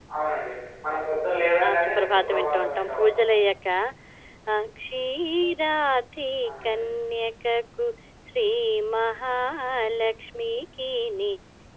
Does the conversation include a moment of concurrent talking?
Yes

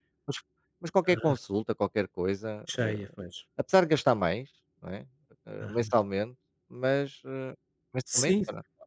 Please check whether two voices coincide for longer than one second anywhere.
No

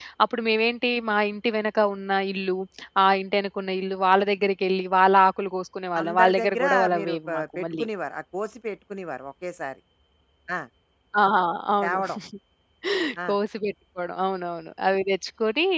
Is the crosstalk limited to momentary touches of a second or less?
No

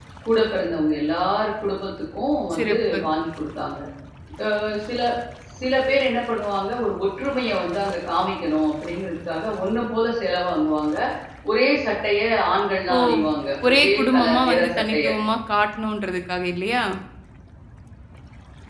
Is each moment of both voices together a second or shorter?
No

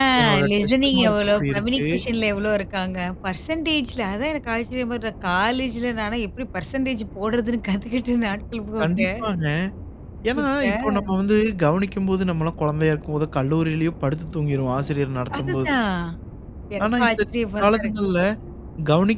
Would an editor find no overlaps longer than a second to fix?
No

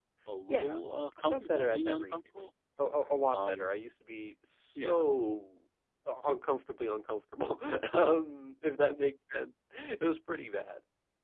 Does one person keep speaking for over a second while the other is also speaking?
Yes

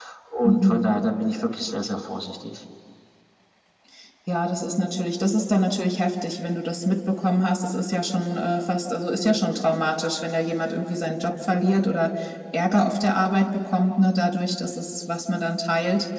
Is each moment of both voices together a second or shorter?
Yes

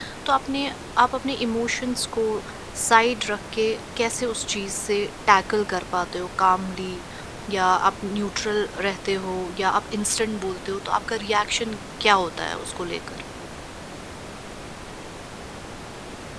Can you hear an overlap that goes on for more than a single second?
No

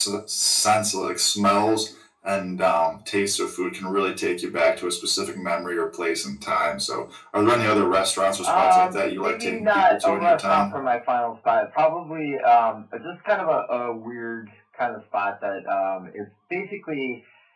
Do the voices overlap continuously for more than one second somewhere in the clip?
Yes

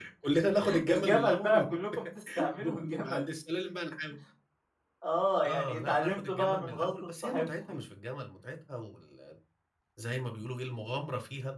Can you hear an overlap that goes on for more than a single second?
Yes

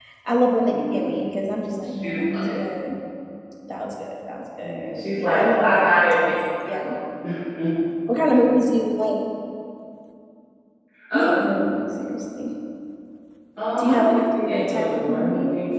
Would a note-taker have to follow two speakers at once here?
Yes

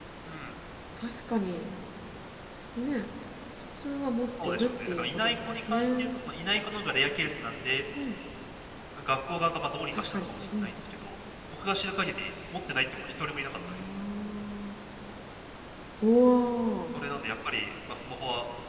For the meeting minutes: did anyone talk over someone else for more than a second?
Yes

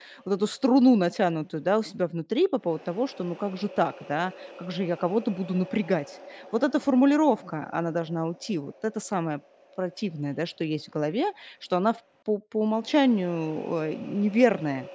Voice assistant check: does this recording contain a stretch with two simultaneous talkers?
No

